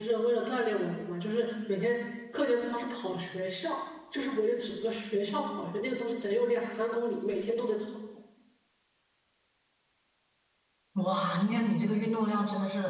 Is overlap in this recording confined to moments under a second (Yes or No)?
Yes